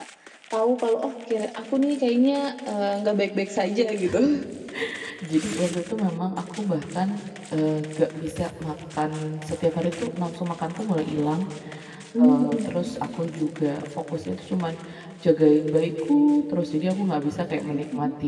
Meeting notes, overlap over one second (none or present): none